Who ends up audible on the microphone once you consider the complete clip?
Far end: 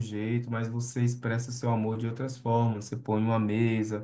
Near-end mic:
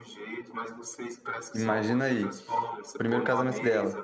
both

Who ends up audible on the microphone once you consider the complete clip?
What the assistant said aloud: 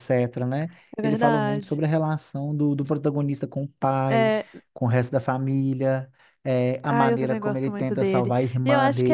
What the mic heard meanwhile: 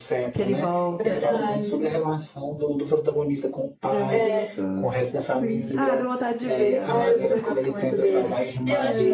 both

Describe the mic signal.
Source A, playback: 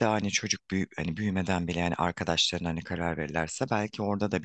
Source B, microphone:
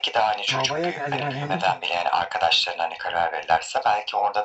both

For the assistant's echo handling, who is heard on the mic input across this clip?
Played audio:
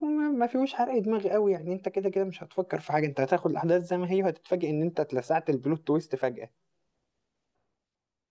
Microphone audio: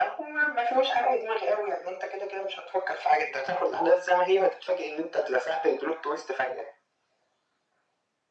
echo only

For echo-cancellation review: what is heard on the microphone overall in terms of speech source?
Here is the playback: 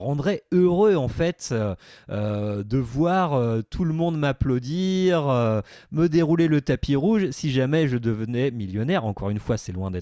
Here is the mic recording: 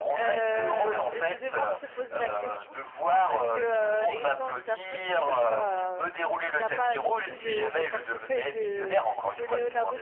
both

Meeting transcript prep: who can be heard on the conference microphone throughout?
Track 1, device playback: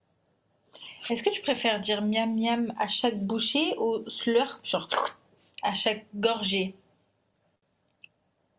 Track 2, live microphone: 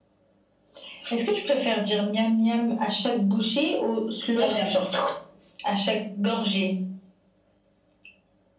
both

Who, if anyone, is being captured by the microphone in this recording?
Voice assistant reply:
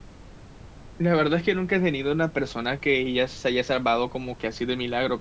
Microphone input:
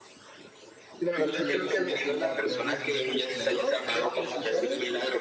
both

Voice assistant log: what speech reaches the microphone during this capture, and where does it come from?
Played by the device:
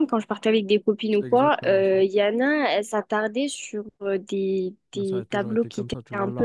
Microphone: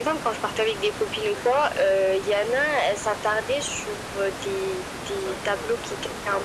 echo only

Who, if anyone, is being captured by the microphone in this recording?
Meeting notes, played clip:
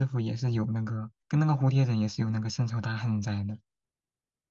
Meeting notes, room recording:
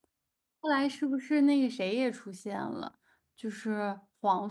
user only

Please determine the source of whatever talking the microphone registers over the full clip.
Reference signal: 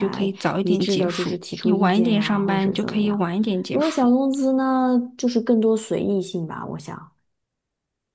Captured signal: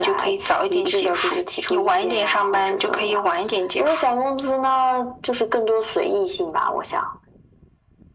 echo only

